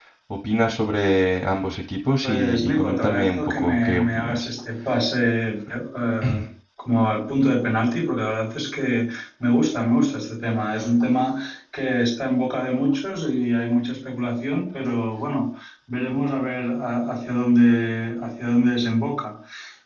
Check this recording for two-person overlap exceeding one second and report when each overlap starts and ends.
2.2-4.5

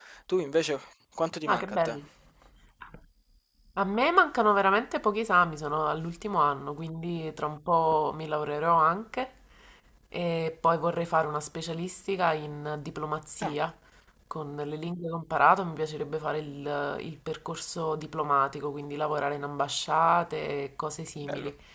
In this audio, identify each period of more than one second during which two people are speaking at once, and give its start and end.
none

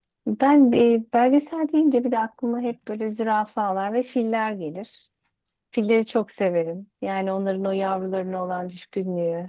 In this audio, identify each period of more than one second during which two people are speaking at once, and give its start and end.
none

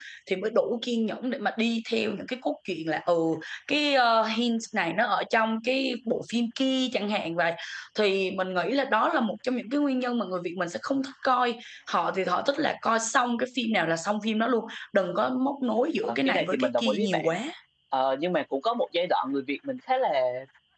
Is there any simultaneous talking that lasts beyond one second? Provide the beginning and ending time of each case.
16.0-17.3

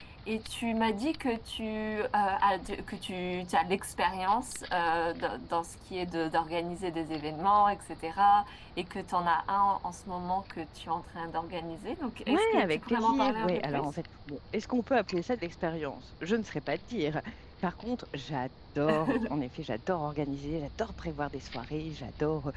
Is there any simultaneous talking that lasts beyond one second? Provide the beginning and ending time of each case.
12.3-13.9

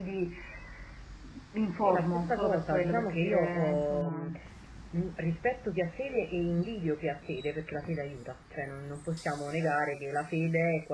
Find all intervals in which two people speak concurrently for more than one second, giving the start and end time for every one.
1.9-4.2

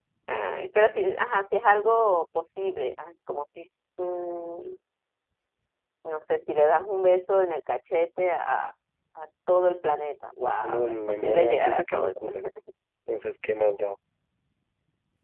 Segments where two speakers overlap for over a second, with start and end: 10.4-12.1

